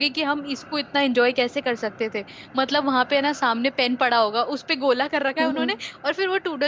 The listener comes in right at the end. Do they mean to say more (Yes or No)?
No